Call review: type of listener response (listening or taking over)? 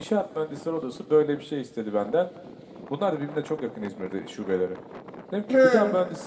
listening